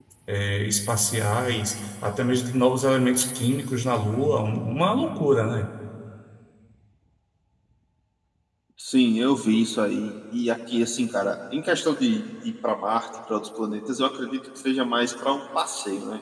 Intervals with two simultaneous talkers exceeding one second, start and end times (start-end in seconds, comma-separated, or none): none